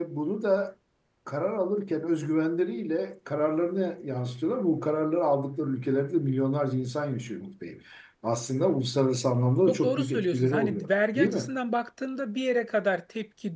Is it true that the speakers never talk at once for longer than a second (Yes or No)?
No